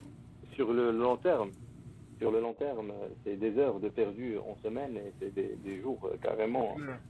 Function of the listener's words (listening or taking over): listening